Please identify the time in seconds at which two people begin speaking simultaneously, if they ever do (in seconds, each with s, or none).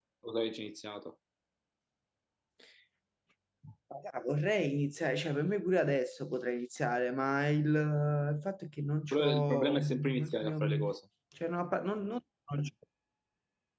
9.1 s